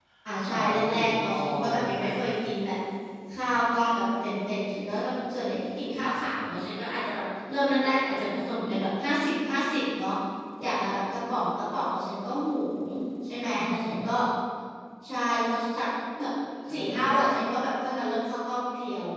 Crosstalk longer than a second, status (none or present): present